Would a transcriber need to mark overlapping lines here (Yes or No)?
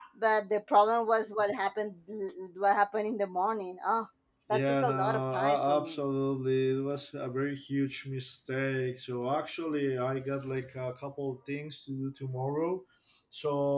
Yes